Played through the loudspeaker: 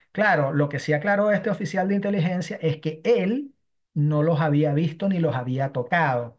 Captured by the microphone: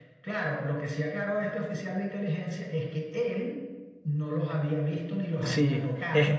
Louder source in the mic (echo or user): user